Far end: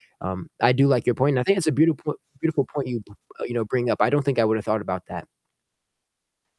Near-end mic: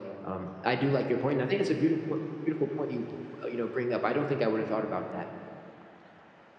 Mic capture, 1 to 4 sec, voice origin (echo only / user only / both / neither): echo only